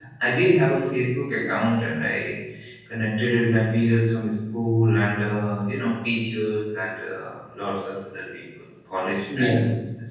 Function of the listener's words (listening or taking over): taking over